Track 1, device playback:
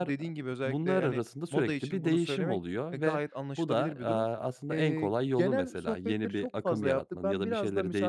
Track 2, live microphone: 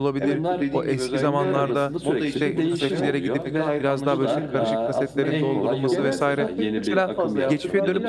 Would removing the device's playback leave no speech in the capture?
No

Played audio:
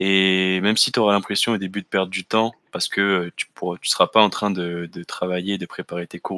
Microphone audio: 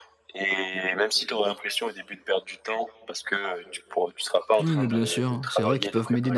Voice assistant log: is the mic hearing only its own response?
No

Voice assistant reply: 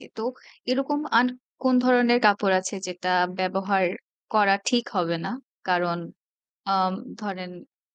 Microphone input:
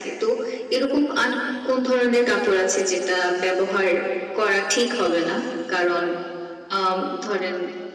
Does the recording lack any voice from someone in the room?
Yes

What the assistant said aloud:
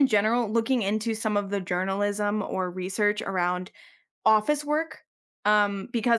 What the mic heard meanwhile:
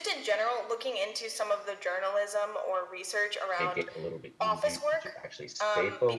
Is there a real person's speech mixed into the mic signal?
Yes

